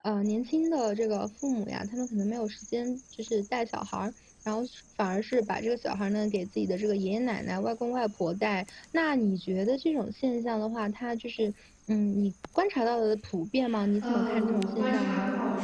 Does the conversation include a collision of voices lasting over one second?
Yes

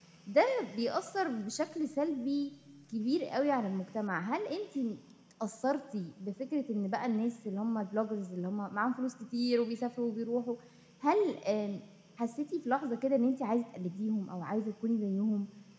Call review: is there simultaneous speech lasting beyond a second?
No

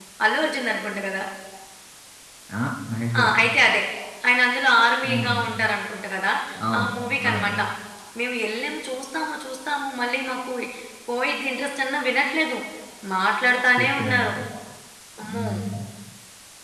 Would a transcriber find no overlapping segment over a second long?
Yes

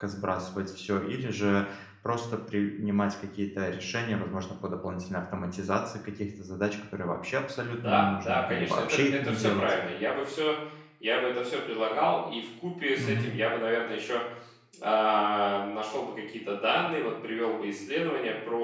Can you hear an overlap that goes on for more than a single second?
Yes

